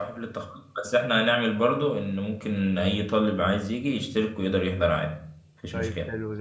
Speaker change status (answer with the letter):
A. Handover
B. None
A